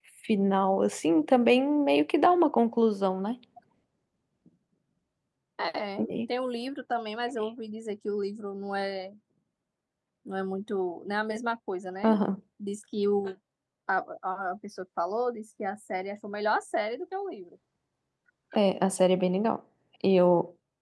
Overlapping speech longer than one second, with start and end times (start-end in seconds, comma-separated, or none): none